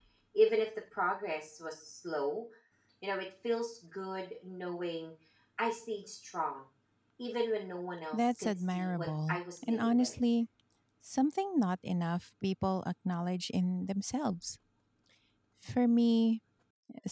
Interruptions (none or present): present